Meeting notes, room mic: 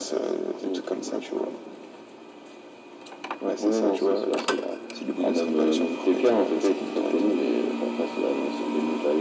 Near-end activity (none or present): none